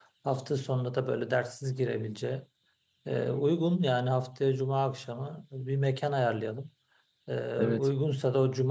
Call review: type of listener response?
listening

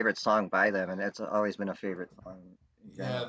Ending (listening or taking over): taking over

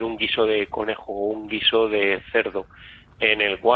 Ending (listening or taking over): listening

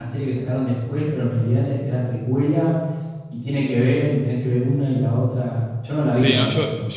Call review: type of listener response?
taking over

